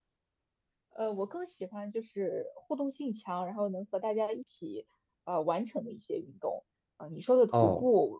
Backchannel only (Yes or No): Yes